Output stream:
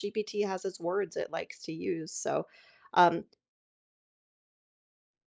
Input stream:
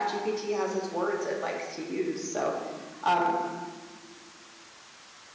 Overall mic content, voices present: echo only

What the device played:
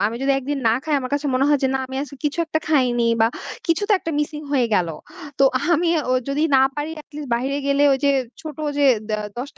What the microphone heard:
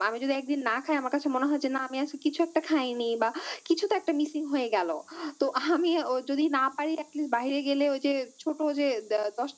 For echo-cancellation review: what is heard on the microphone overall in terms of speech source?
echo only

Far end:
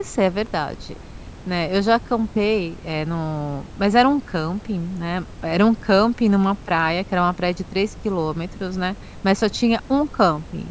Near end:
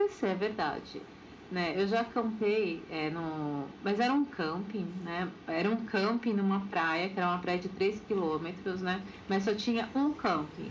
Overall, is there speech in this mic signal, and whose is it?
echo only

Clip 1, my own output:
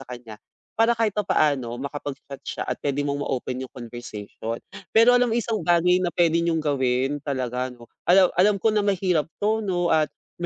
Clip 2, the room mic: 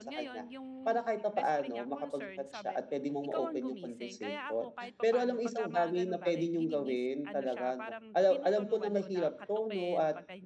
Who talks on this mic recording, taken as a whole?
both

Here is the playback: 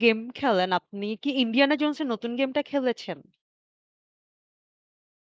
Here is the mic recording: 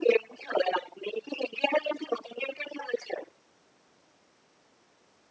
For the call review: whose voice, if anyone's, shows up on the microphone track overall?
echo only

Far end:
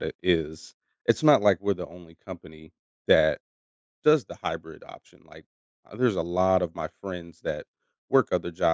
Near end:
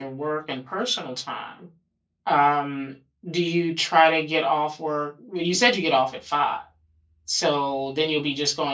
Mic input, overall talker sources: user only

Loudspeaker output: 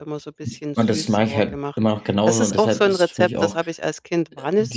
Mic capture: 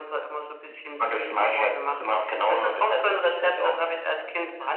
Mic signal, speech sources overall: echo only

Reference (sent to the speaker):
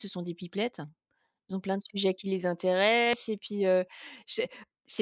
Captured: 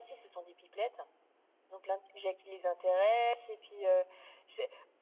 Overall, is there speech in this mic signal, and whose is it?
echo only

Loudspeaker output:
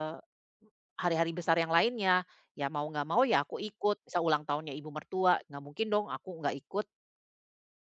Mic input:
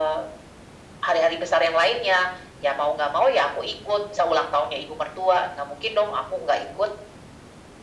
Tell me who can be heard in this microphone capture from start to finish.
echo only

